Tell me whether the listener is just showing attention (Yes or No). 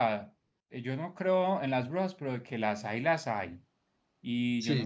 Yes